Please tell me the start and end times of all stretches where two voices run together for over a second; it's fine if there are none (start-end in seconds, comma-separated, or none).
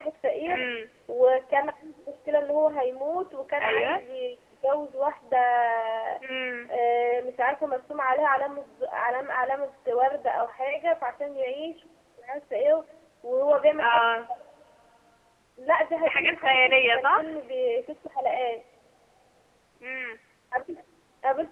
16.0-17.3